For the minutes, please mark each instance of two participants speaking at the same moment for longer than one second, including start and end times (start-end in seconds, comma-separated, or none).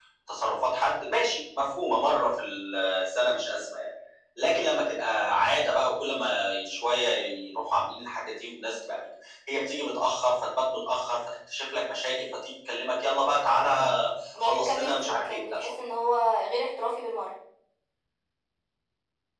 14.4-15.7